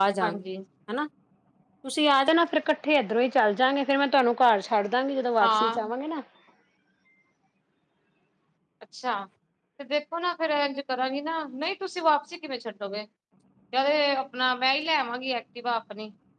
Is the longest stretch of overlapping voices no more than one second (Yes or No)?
Yes